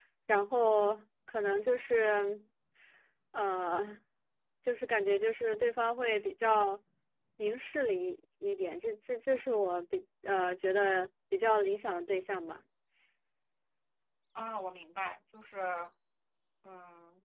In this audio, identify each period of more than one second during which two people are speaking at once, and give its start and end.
none

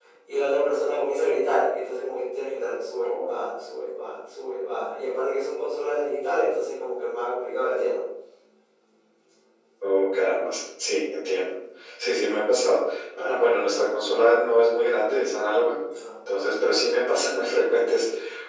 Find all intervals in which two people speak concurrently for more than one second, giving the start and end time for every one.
none

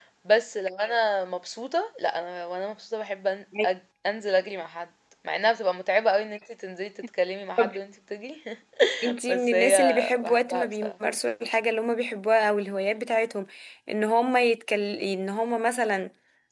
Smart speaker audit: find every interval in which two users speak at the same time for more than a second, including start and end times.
9.3-10.9

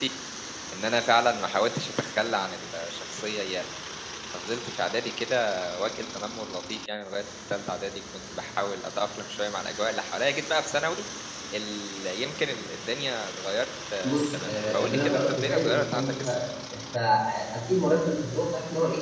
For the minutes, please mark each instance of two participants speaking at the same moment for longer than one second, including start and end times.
14.0-16.1

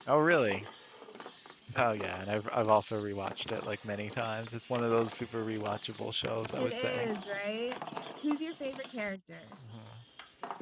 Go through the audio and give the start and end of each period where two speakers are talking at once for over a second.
none

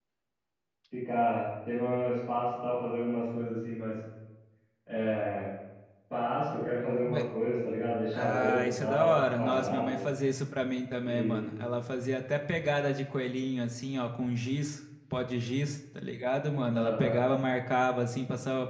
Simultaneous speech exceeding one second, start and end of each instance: 8.1-10.0

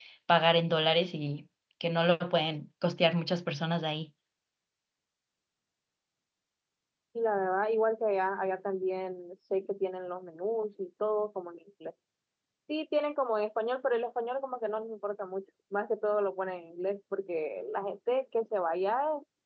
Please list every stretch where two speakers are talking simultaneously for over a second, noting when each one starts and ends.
none

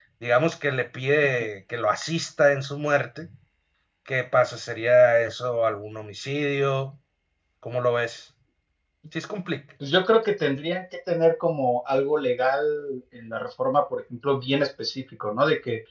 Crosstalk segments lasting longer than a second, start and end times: none

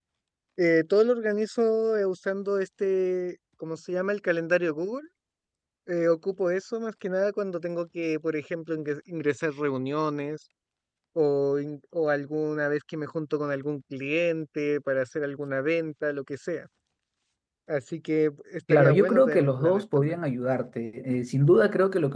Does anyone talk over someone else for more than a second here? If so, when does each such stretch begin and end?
18.7-20.2

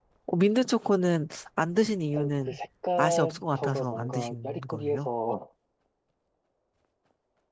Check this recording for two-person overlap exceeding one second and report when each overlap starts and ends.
3.0-5.1

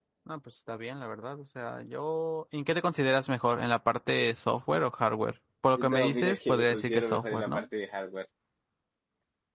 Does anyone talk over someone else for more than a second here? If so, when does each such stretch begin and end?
5.8-7.7

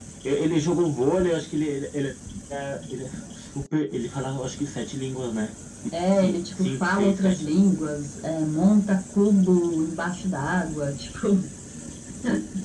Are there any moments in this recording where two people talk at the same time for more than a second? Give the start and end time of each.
6.1-7.5

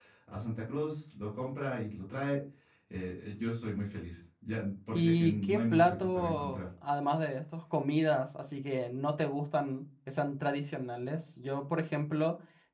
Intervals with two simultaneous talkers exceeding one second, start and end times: 4.9-6.6

